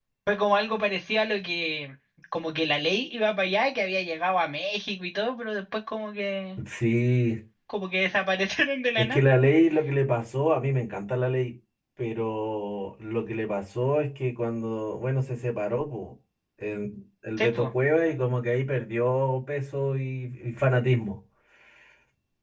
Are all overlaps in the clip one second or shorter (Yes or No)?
Yes